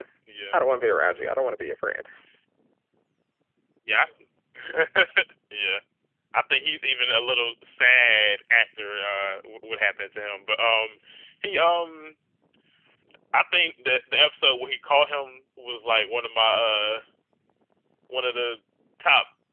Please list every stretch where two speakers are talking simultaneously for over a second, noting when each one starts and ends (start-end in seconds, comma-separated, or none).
none